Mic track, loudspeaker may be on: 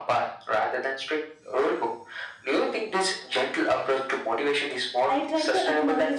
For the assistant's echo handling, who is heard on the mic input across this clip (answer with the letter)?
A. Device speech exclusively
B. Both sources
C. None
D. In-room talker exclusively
B